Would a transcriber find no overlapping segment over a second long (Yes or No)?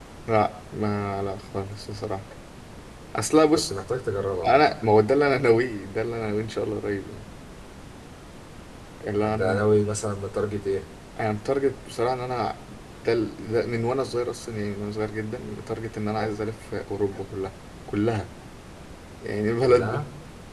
Yes